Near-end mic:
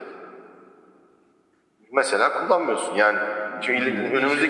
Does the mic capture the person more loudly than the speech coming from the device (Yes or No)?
No